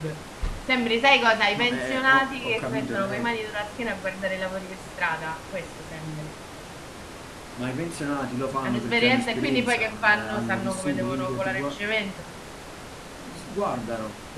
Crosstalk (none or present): present